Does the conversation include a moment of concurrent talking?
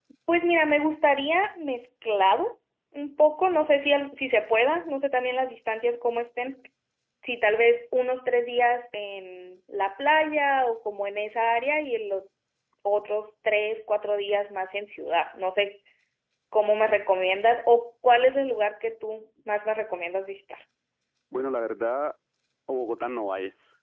No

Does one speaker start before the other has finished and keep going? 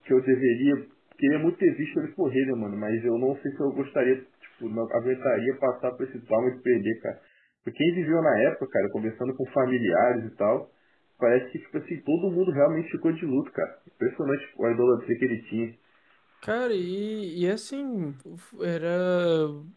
No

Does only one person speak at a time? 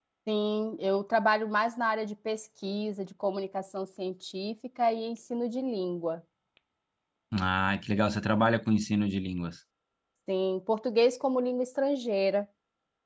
Yes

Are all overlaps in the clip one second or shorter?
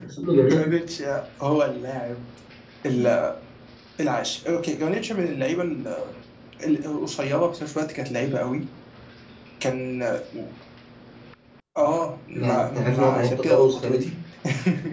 No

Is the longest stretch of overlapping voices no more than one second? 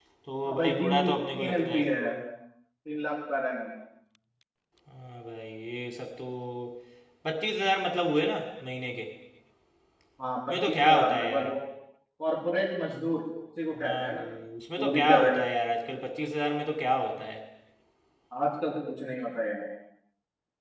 No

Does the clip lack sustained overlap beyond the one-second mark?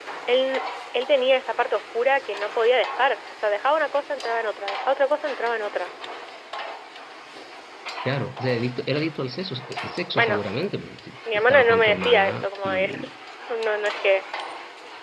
No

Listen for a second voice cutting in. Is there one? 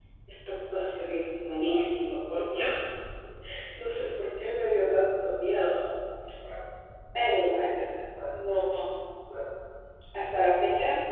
No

